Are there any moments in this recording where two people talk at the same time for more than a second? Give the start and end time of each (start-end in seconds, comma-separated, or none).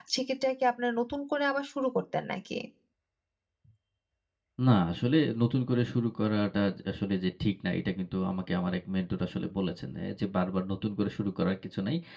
none